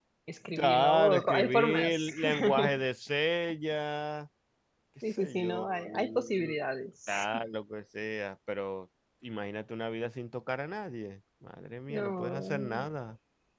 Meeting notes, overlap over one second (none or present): present